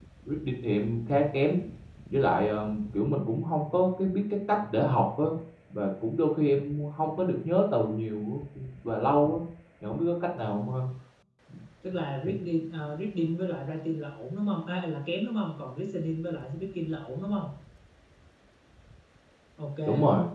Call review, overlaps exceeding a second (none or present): none